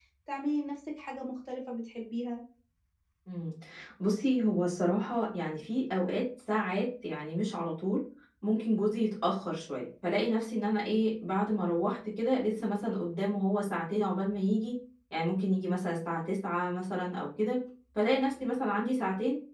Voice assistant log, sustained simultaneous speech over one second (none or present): none